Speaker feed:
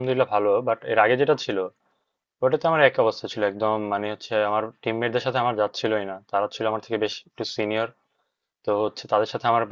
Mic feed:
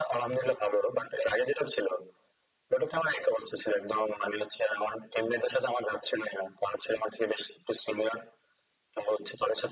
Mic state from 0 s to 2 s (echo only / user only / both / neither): echo only